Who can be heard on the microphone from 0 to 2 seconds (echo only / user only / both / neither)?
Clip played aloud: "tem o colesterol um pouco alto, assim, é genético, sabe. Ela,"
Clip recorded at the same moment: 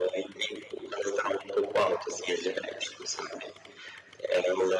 echo only